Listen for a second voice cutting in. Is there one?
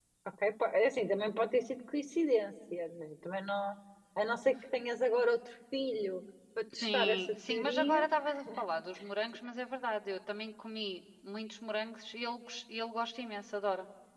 Yes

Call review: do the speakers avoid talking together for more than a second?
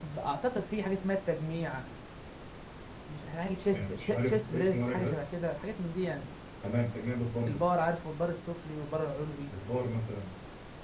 No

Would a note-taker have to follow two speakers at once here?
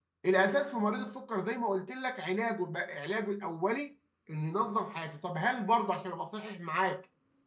No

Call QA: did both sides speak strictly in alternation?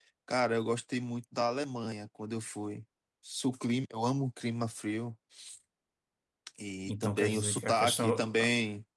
No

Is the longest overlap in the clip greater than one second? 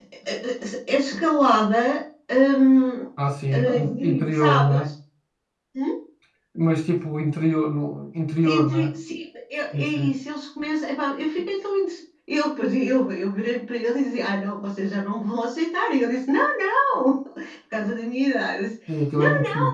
Yes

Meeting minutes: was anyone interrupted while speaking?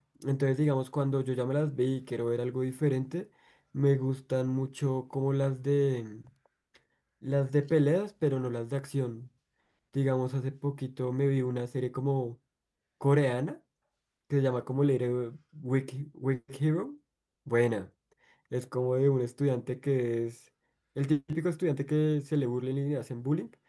No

